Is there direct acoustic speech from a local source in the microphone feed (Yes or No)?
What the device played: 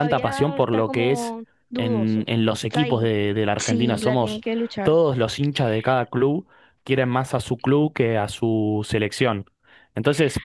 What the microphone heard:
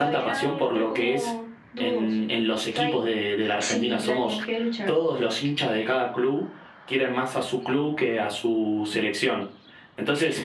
No